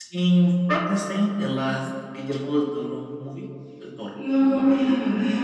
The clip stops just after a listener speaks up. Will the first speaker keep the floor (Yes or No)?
No